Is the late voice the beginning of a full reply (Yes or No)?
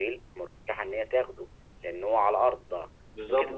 No